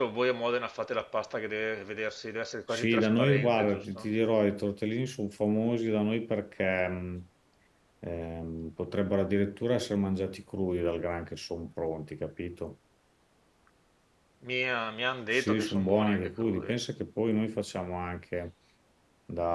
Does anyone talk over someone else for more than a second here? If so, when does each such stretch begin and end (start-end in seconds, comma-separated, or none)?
2.7-4.0, 15.3-16.7